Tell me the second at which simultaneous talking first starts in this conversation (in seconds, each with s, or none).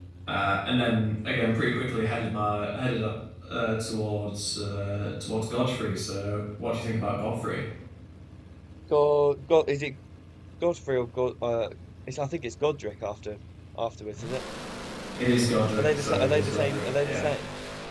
15.8 s